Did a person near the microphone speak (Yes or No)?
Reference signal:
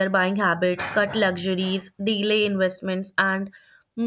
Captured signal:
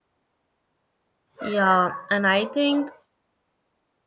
Yes